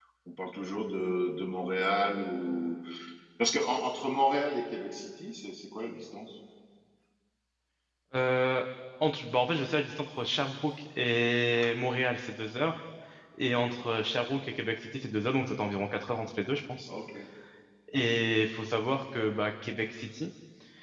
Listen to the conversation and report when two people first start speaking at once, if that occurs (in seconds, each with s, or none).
none